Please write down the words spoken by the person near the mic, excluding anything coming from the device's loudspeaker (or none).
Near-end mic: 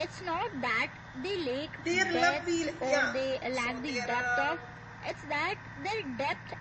Their love feel yeah. So there are